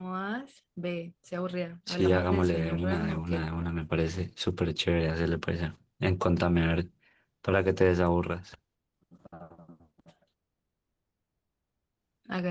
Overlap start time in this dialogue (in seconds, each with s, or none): 1.9 s